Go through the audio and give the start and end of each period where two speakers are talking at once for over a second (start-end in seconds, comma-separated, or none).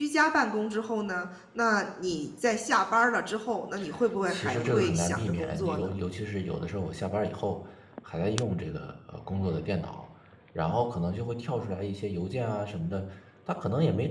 4.3-6.0